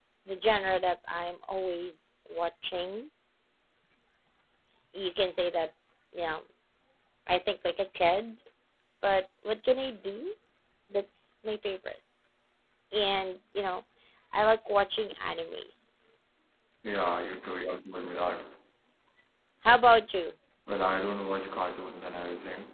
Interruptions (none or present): none